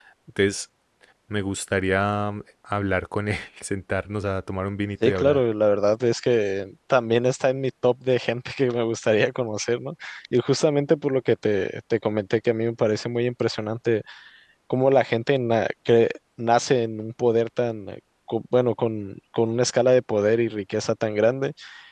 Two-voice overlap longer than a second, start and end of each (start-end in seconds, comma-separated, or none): none